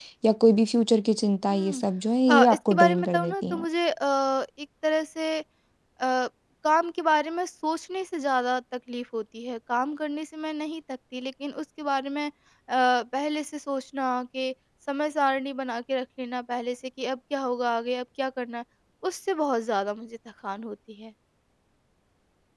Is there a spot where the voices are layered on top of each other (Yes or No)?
Yes